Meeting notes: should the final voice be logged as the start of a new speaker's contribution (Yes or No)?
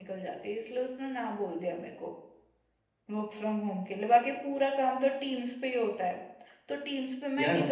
No